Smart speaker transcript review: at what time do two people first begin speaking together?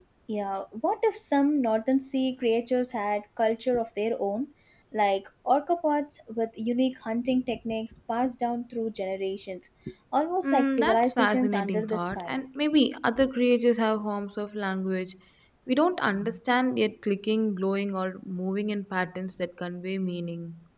10.4 s

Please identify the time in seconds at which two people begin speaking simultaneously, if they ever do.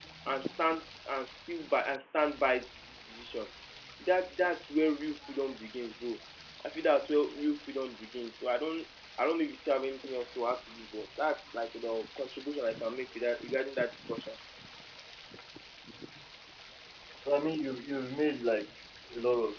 none

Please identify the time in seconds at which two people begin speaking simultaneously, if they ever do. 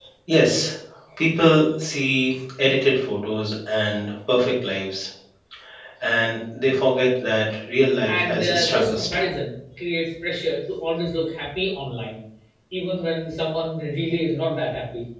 8.1 s

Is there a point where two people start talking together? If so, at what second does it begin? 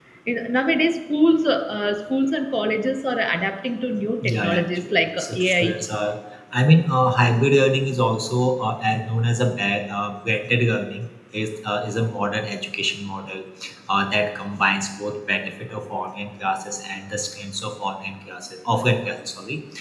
4.2 s

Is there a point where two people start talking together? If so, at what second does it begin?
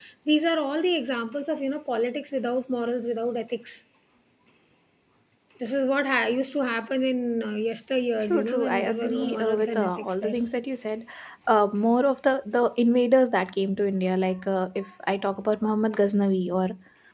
8.2 s

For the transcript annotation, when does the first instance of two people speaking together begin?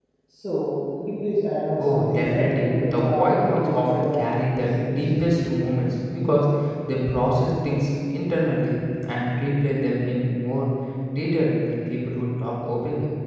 1.8 s

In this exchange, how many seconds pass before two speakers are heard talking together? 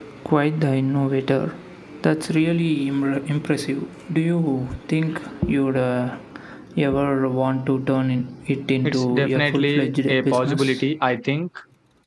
8.8 s

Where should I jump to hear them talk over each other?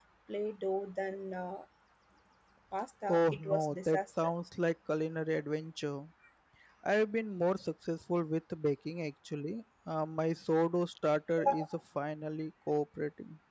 3.1 s

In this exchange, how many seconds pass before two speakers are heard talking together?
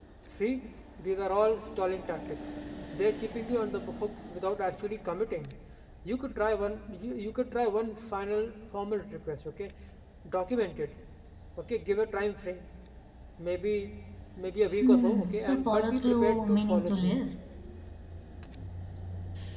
14.8 s

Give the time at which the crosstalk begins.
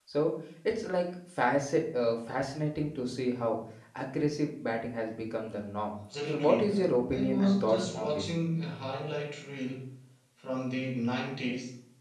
6.3 s

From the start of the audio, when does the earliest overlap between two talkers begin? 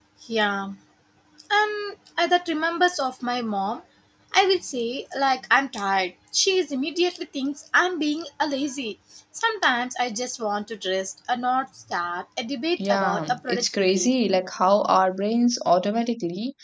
12.8 s

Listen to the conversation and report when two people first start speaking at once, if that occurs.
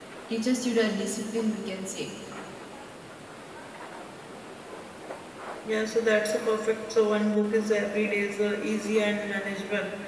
none

